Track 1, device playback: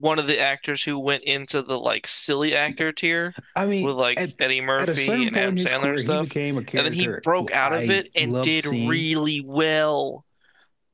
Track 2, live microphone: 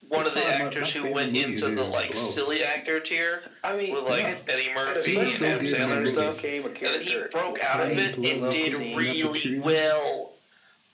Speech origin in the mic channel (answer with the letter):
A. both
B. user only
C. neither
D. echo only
A